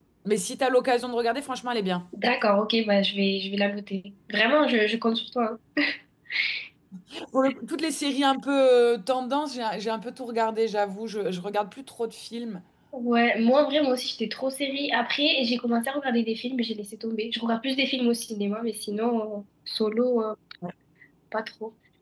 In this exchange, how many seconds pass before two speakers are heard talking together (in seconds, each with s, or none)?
none